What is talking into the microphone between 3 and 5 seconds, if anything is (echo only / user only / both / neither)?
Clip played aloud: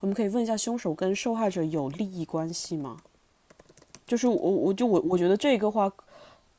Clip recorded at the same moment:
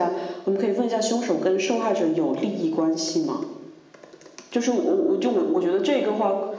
echo only